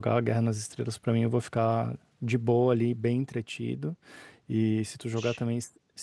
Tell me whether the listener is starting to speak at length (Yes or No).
No